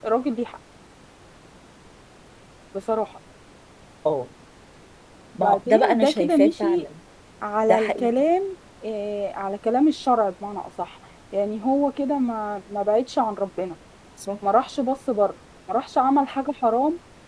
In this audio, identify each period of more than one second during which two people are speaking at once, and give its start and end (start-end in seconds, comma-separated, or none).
5.4-6.9